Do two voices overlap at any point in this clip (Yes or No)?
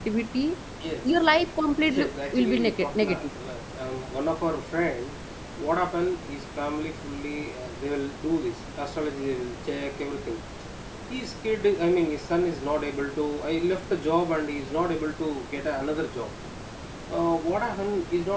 Yes